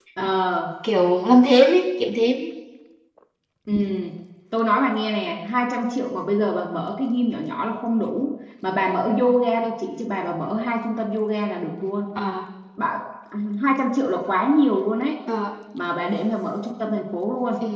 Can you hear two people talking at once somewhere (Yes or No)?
No